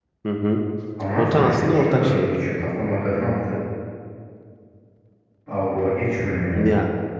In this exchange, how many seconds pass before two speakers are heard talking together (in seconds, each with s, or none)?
1.1 s